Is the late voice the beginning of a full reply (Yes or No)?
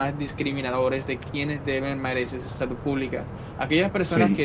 No